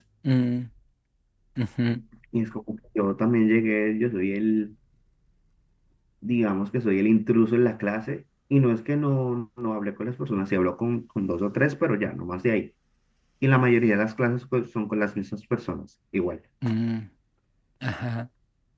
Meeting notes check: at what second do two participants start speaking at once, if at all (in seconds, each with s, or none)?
none